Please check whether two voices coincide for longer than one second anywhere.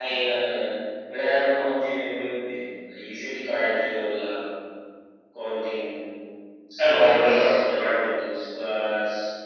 Yes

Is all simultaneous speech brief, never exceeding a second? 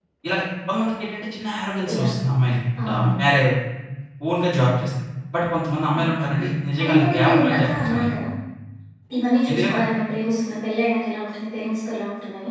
No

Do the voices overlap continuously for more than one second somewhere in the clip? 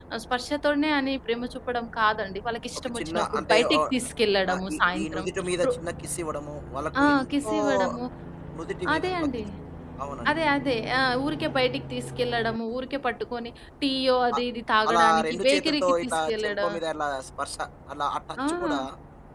Yes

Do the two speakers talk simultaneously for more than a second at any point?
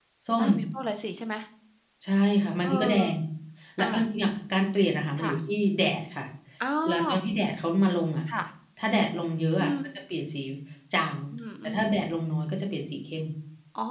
No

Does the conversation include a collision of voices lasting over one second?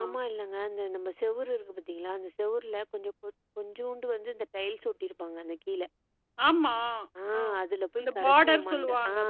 Yes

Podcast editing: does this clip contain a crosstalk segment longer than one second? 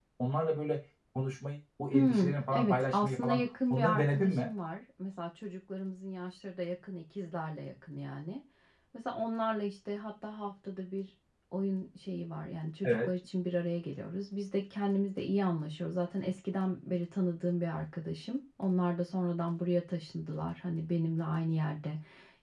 Yes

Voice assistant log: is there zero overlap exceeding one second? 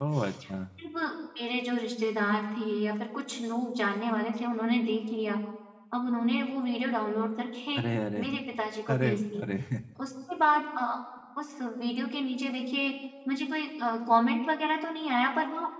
Yes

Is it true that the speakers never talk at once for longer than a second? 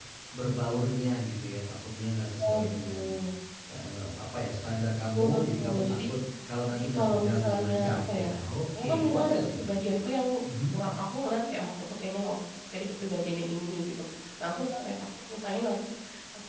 No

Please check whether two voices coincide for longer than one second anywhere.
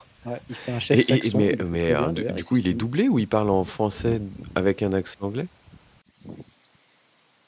Yes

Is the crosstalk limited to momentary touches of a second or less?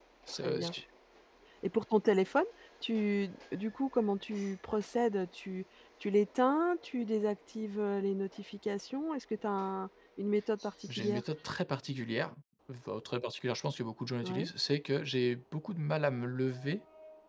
Yes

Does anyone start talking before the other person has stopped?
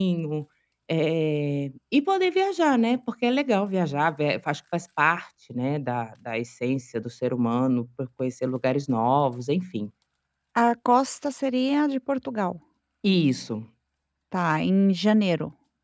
No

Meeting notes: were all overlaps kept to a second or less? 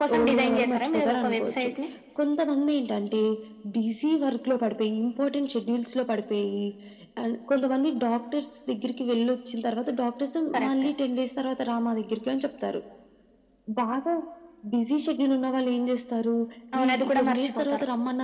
No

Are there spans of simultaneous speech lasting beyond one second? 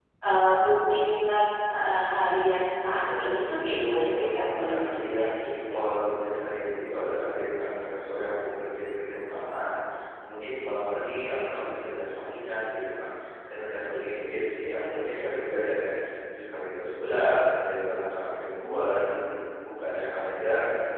Yes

